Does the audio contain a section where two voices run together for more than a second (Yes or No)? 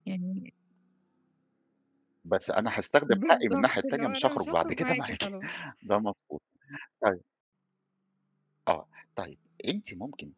Yes